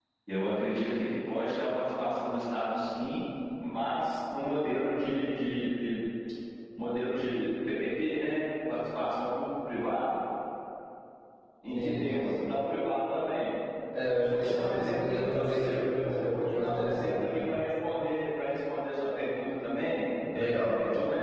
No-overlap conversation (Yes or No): No